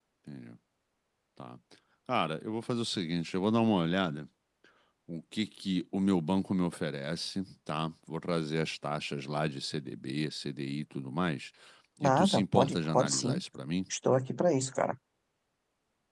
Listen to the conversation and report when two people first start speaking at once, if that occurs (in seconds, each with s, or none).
12.0 s